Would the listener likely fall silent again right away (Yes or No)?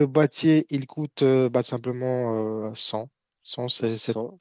No